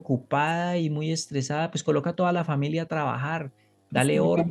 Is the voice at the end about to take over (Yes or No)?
No